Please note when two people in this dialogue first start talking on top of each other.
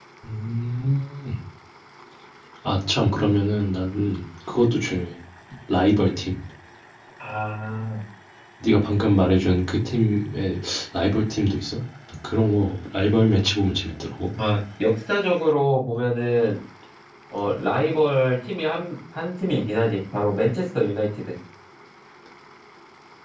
none

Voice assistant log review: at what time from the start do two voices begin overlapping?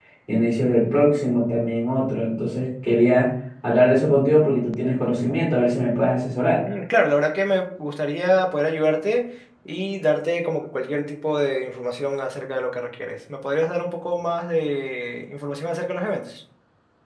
none

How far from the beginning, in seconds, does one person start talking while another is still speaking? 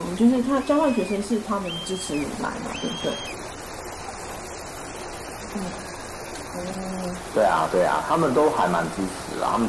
none

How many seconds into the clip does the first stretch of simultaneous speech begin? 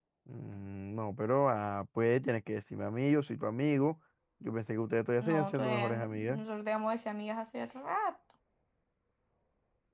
5.2 s

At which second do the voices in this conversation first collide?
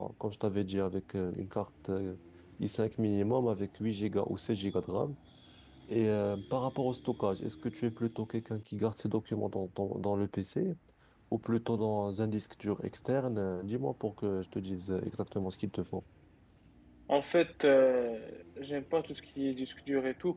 none

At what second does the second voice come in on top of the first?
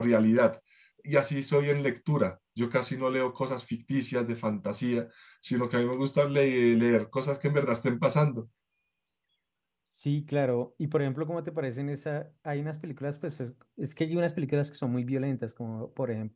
none

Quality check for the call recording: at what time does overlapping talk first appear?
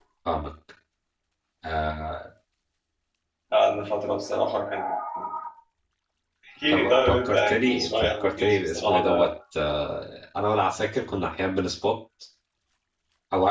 6.7 s

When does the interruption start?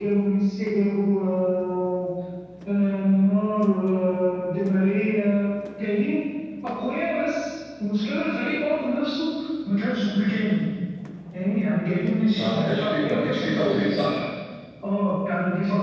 12.3 s

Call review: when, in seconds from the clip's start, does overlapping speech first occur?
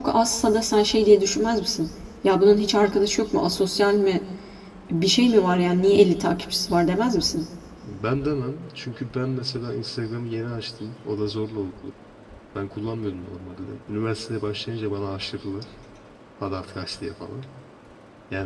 none

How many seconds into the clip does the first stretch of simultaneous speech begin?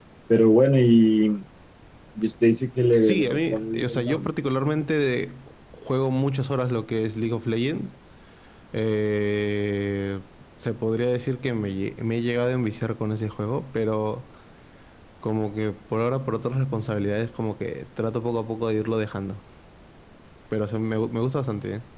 2.9 s

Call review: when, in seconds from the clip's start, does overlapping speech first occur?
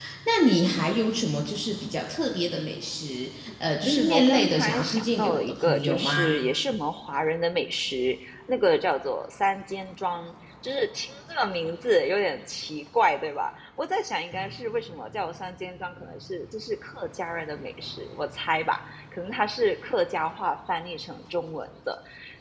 3.8 s

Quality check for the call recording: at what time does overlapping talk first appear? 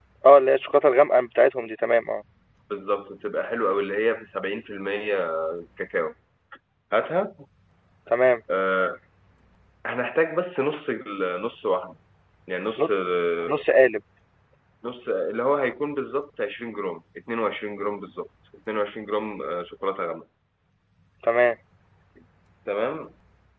none

